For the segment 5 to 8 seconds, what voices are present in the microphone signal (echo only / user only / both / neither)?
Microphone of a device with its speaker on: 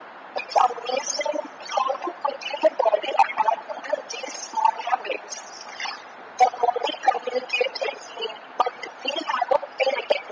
echo only